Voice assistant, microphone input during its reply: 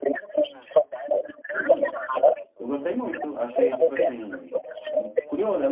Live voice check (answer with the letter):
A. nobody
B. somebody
B